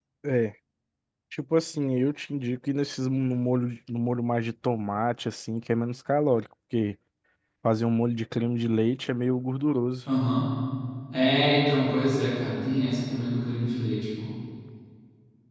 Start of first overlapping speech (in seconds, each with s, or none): none